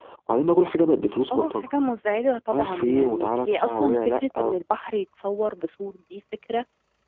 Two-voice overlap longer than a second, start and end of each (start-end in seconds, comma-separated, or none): 2.5-4.5